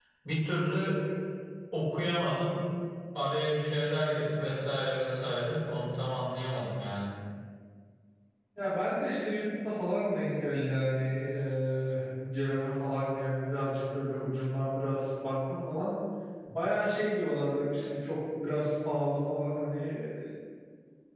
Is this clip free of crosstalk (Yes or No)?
Yes